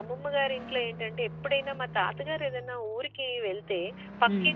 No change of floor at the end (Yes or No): Yes